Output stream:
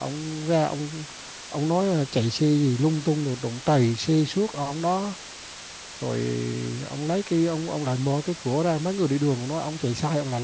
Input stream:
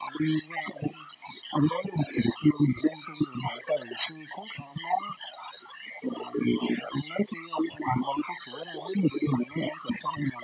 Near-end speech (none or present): none